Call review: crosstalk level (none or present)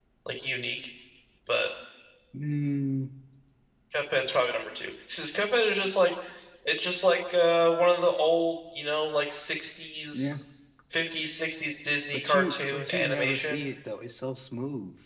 present